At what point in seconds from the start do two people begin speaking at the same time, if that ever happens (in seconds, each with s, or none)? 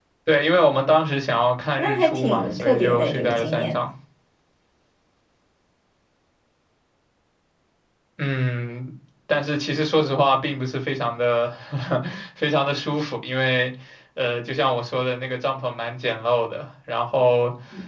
1.8 s